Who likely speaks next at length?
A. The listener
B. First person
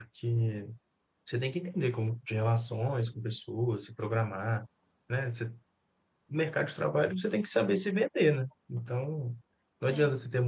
B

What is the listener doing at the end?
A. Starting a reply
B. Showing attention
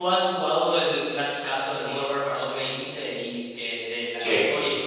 B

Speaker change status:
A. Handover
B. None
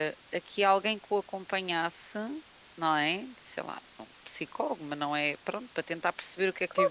A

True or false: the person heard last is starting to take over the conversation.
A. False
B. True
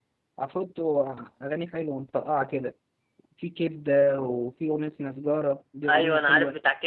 B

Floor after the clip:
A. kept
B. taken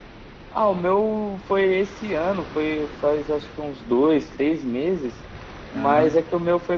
A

